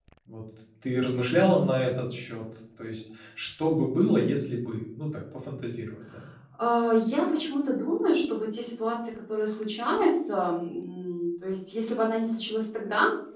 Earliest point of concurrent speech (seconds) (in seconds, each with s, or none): none